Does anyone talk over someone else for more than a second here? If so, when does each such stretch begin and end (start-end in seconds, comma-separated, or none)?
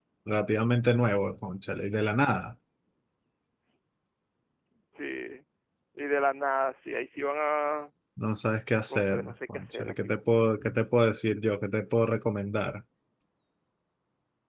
8.9-10.2